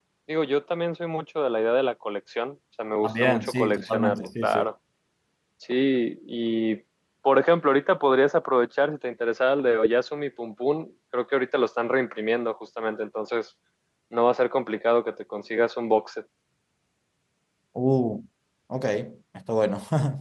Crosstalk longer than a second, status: present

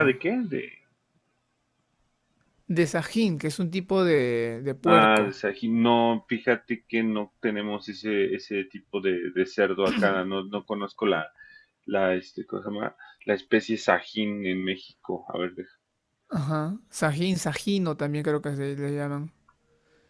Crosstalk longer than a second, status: none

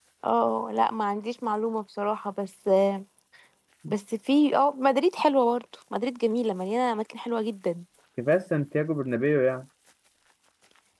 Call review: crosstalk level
none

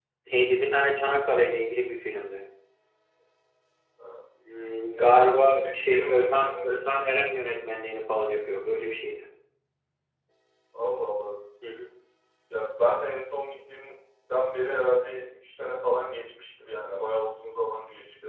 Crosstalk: present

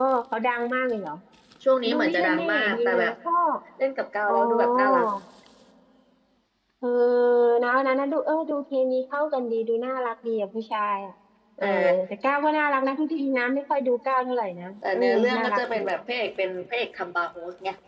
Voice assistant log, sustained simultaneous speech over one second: present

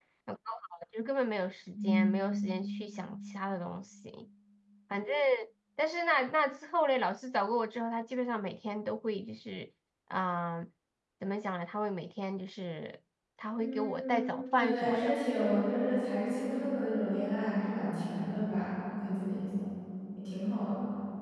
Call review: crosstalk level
present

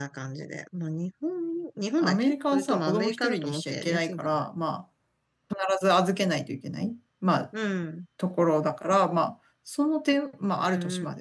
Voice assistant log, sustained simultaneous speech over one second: present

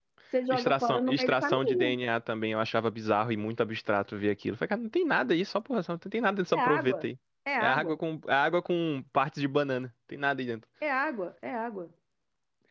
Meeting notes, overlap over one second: present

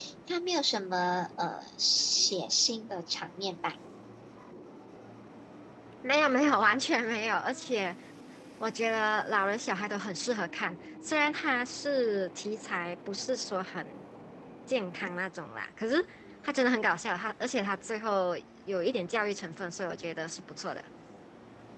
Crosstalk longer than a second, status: none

